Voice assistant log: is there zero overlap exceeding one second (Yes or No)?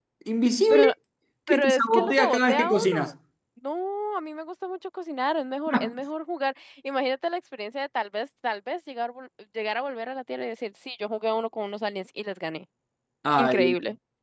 No